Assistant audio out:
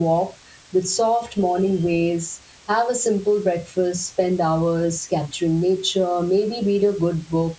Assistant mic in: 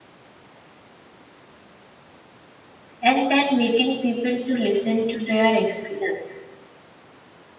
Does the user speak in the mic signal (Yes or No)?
Yes